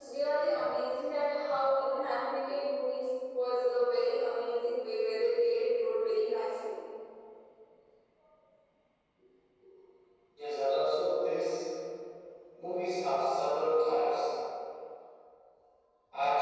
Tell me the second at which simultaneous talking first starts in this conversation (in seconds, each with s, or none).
none